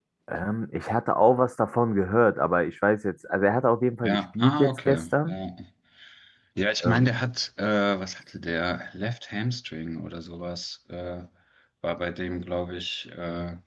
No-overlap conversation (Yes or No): No